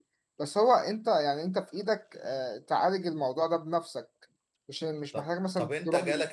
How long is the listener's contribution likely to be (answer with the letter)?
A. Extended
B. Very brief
A